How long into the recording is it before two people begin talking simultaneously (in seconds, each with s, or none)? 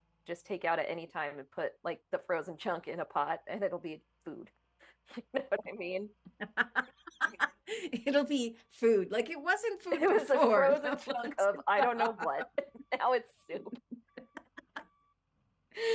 9.9 s